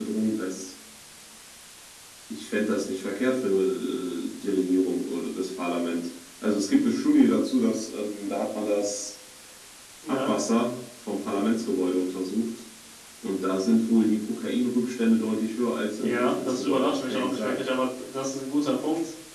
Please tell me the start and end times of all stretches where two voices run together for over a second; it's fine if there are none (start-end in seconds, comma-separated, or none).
16.0-17.6